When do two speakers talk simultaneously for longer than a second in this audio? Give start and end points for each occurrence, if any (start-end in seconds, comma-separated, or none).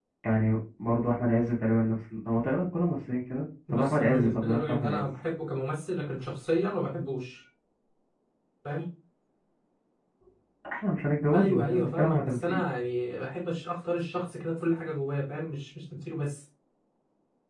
3.7-5.0, 11.3-12.6